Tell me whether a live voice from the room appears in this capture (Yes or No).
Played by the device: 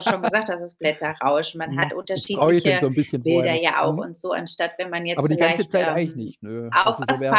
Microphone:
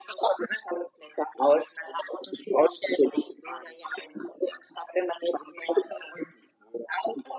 No